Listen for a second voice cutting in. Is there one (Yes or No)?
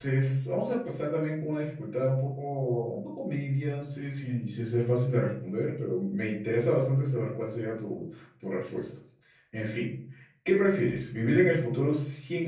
No